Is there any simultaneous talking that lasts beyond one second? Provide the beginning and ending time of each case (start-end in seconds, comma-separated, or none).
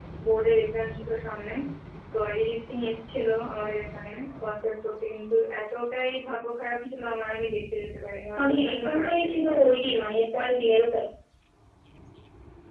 8.4-9.6